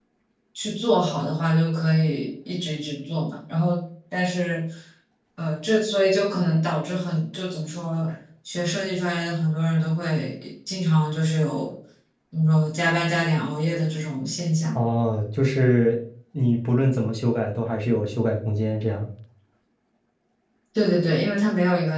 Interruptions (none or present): none